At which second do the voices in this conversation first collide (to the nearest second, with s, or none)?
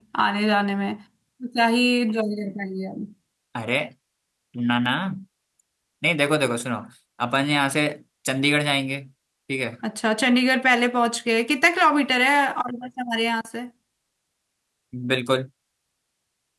none